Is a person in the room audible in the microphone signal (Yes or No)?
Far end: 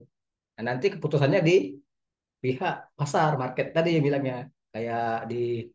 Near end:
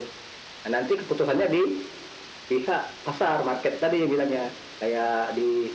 No